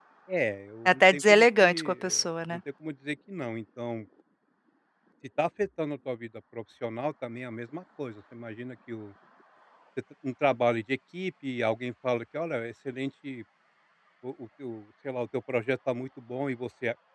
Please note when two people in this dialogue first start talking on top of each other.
0.9 s

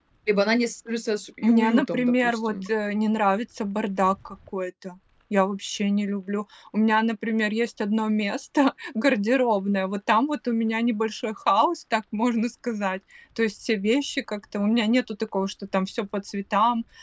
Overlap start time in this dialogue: 1.4 s

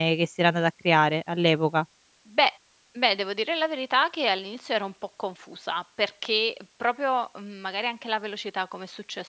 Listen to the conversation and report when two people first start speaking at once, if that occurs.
none

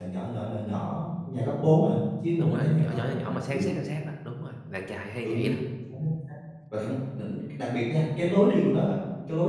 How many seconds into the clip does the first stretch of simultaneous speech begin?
2.4 s

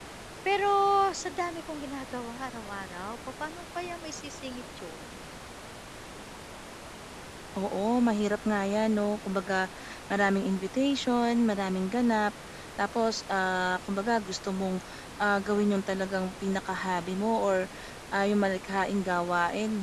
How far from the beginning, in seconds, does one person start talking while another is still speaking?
none

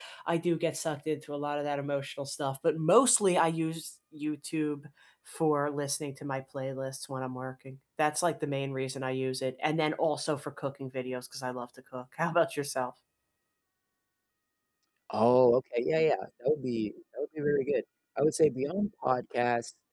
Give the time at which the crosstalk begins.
none

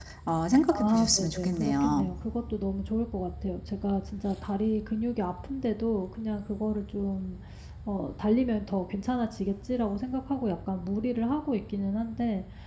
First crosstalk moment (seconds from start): 0.7 s

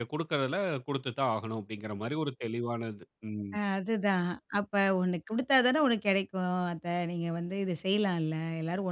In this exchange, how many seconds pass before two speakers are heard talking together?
none

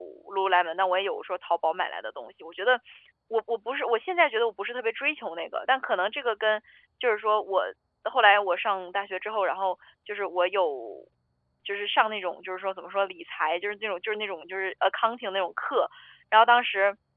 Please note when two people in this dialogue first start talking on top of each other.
none

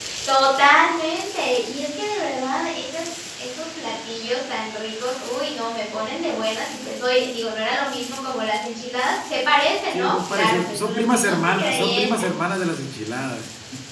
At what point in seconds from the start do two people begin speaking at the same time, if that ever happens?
9.9 s

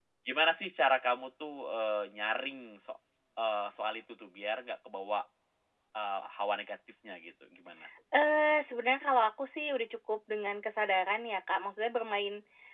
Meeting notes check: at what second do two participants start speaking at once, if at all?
none

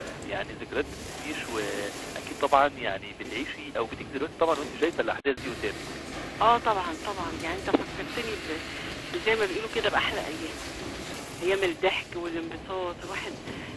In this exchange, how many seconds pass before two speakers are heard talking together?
none

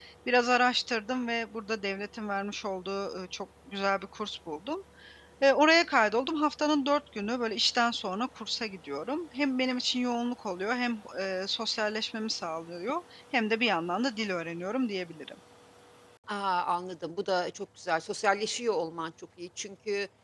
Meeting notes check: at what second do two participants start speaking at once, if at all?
none

